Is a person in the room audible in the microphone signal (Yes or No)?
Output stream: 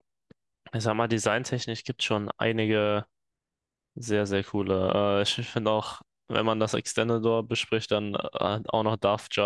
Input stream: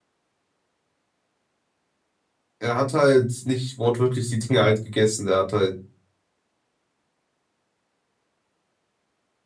Yes